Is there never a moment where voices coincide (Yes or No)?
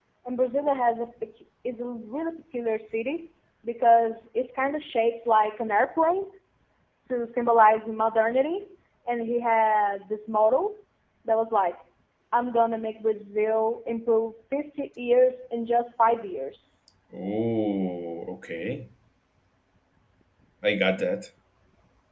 Yes